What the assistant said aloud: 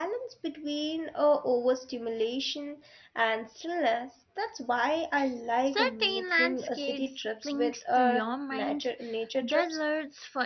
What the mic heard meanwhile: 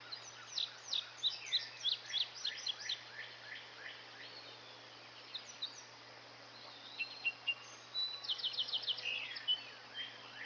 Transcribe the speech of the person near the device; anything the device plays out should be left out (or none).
none